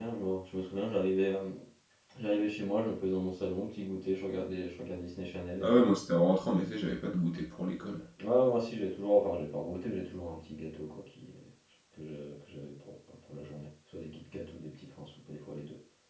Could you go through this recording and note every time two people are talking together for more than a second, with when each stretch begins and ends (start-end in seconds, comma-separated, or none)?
none